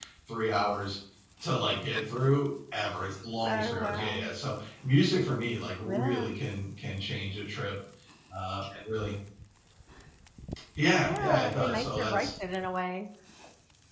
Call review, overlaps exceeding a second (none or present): present